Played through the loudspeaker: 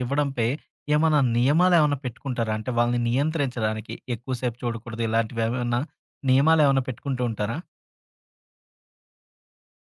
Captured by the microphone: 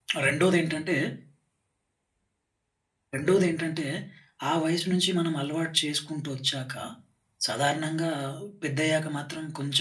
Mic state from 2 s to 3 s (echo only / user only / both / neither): neither